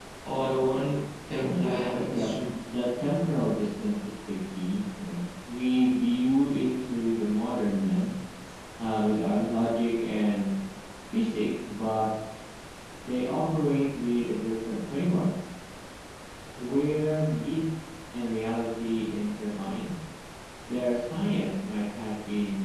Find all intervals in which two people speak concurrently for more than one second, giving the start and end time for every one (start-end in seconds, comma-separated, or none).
none